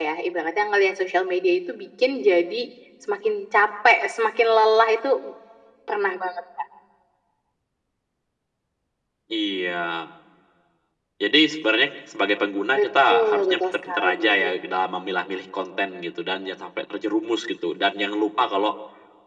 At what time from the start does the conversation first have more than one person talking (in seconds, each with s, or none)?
12.8 s